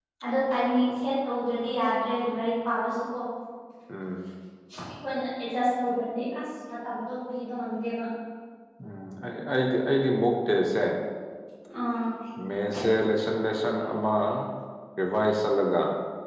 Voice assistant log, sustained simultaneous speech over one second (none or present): none